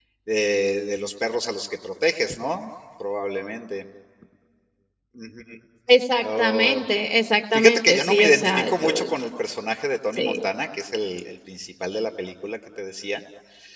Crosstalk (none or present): present